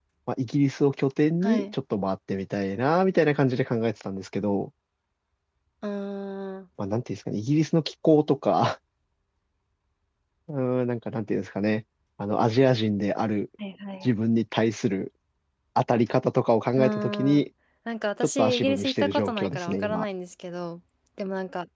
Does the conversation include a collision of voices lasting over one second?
Yes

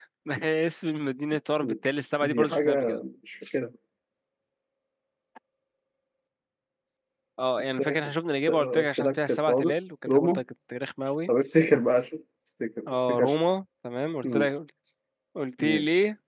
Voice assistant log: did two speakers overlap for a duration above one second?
Yes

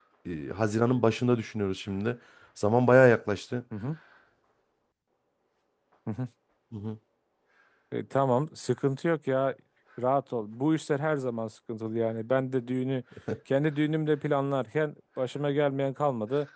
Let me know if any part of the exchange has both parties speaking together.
No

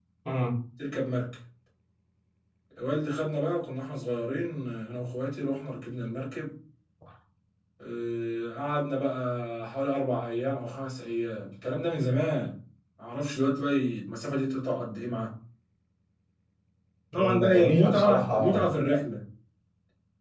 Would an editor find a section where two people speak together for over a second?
Yes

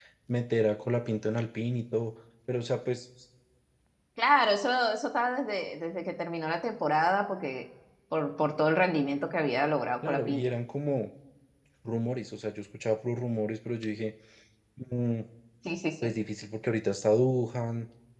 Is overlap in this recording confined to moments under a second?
Yes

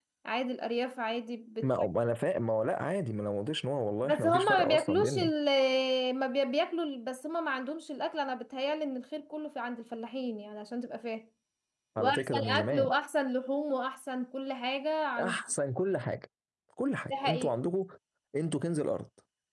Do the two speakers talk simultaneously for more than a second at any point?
Yes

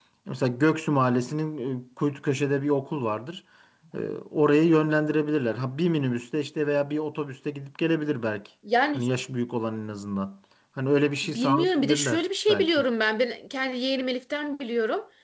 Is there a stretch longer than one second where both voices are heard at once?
Yes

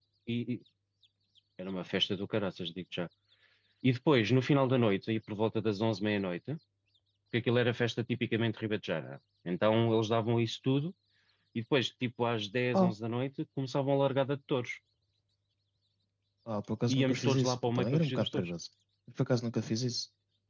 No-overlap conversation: No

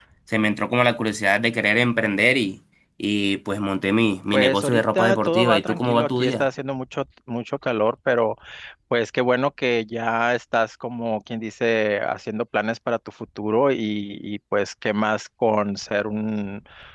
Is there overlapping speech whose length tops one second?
Yes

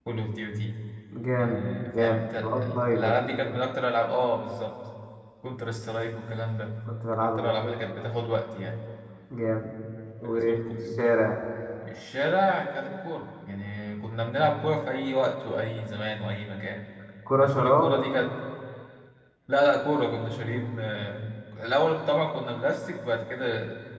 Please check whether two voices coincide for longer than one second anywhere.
Yes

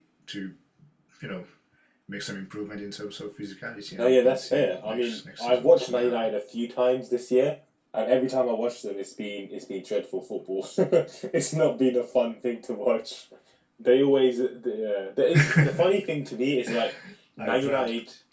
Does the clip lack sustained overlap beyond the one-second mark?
No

